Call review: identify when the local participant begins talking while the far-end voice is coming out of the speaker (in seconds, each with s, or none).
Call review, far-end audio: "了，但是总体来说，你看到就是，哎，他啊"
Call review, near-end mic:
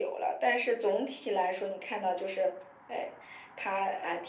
none